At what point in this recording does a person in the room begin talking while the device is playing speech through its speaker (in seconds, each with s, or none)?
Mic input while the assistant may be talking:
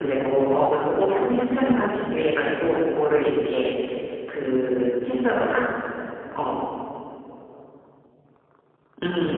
none